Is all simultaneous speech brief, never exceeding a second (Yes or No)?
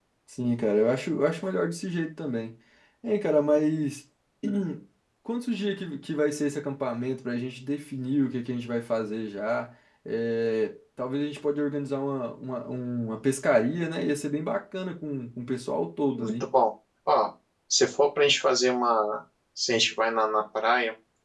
Yes